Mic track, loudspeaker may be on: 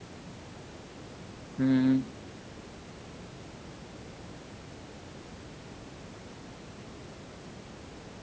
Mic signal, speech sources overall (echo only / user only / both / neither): user only